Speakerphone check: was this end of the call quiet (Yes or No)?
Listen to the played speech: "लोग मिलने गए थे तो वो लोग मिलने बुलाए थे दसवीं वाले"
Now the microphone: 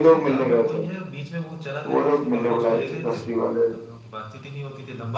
No